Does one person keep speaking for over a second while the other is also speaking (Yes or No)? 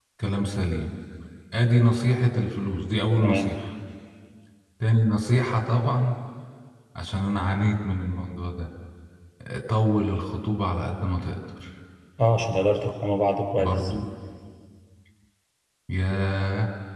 No